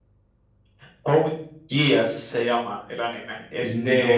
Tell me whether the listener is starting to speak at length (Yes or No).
No